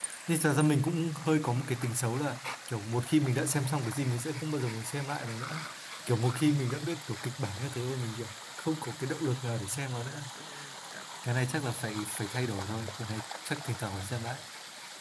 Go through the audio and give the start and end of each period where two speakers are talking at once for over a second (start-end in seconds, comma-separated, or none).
none